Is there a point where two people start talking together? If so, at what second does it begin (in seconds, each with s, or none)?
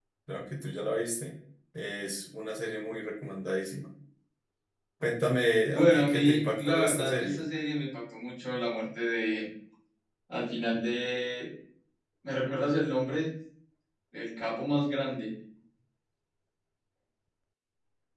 5.7 s